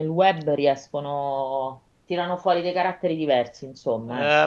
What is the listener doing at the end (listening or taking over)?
taking over